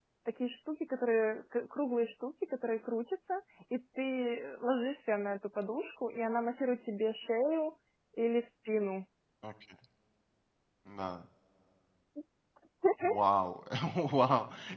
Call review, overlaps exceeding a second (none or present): none